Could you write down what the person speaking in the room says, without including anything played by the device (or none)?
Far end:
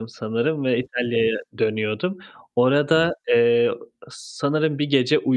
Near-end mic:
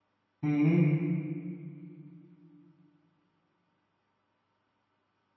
Hı hı.